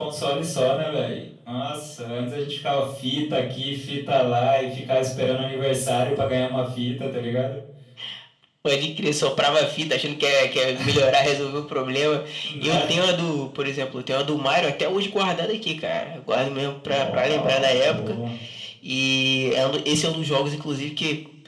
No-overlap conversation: No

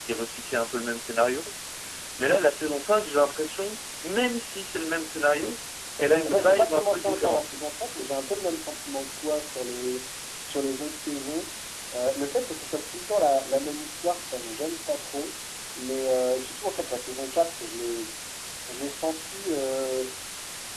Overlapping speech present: Yes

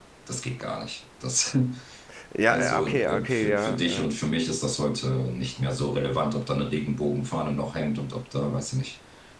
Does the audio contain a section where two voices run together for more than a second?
Yes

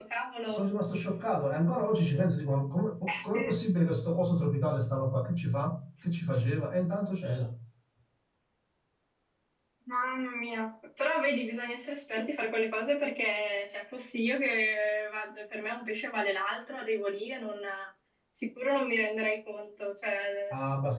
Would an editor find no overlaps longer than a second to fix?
Yes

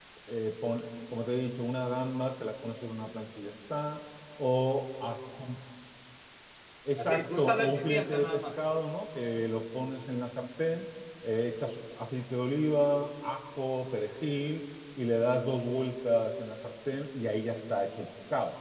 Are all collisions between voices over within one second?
No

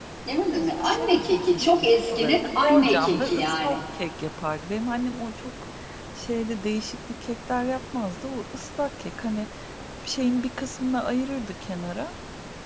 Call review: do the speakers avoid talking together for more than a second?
No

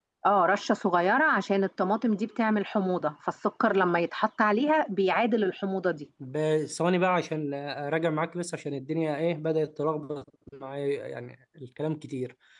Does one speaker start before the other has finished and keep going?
No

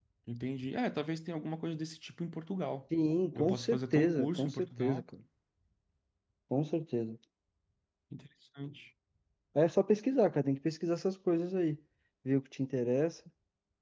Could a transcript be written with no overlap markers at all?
No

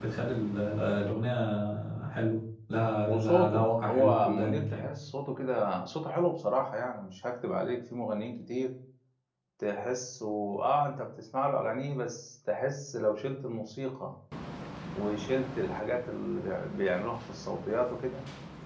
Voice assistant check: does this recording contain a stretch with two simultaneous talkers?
Yes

